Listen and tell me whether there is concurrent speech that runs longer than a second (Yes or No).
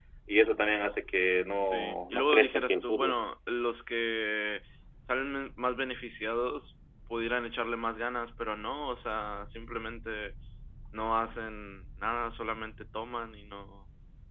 Yes